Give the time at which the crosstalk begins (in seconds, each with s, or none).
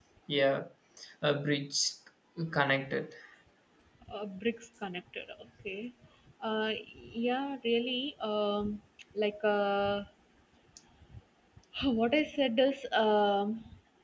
none